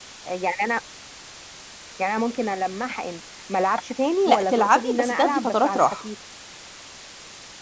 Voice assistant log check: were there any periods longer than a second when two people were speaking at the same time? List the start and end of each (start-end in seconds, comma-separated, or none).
4.3-6.0